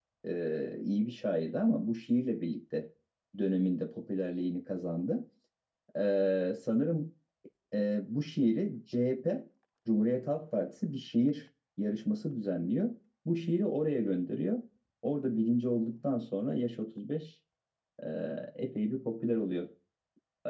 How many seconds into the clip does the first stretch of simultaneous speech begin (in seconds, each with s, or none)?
none